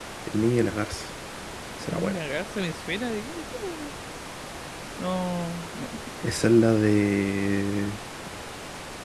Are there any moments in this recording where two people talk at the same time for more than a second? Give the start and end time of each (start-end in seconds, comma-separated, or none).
none